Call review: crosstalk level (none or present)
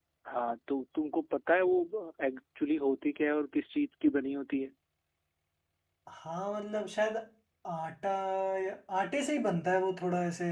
none